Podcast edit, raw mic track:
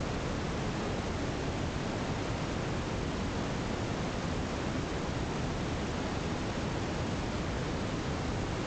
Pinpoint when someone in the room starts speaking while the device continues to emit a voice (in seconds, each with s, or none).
none